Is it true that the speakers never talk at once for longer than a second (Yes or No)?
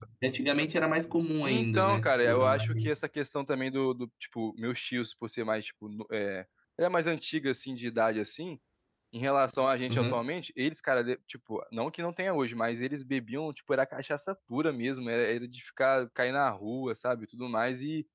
No